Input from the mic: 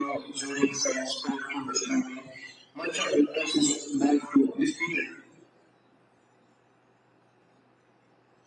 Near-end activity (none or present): none